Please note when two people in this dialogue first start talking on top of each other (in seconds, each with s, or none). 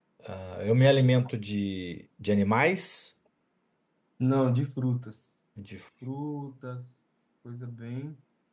none